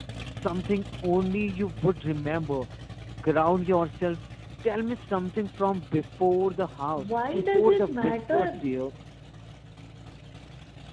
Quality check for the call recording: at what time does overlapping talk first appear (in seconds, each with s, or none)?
7.0 s